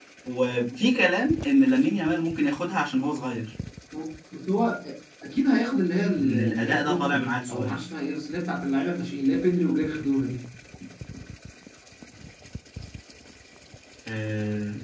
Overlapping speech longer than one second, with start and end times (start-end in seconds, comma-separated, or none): 6.2-7.7